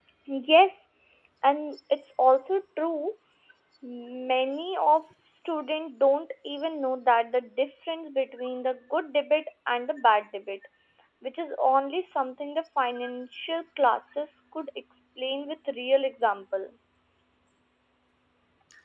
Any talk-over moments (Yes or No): No